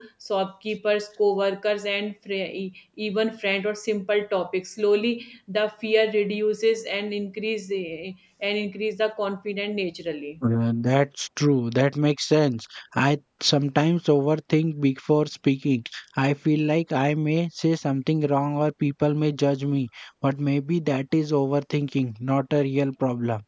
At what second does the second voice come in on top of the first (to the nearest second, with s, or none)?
none